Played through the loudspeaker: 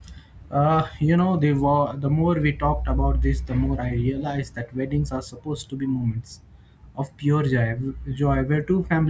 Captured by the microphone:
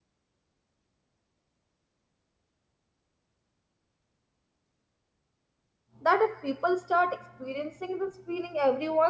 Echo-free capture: Yes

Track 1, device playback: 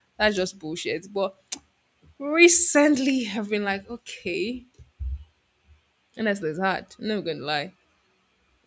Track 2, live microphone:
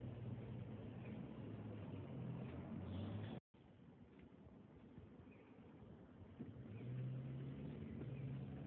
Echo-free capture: Yes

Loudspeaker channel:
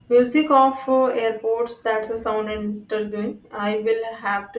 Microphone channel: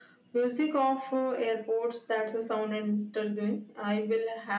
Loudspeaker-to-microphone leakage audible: Yes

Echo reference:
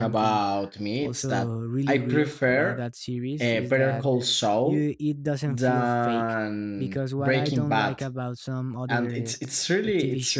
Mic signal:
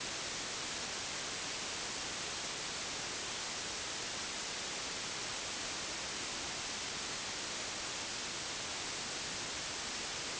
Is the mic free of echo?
Yes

